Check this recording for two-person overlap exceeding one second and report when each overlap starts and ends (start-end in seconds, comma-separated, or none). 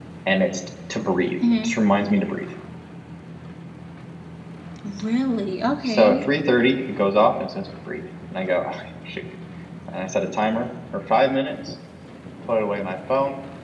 none